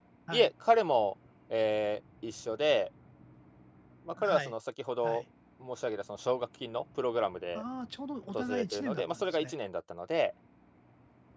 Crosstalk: present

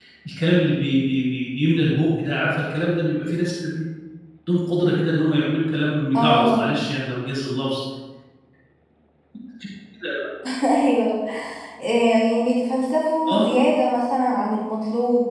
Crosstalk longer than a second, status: none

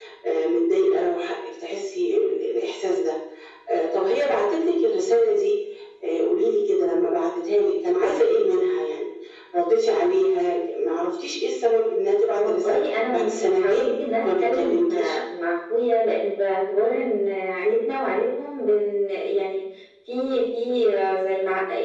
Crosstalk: present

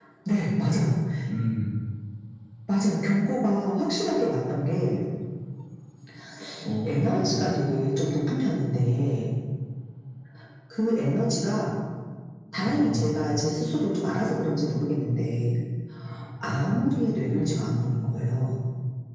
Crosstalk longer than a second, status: none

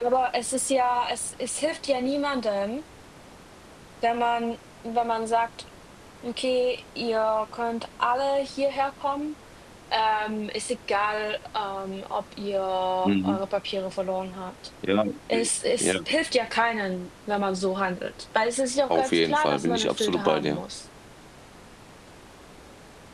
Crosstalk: present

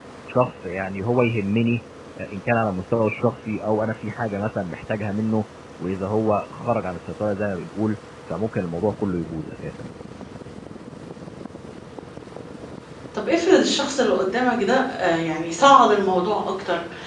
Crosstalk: none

